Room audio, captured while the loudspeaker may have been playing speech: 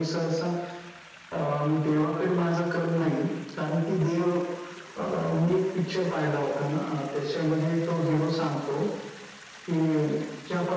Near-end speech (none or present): none